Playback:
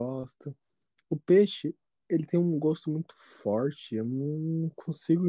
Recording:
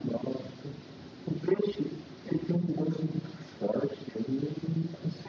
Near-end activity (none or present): none